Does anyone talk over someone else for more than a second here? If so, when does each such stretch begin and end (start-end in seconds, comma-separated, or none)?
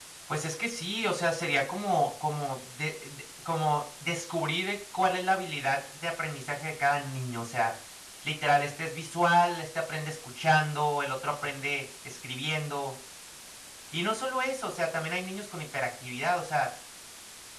none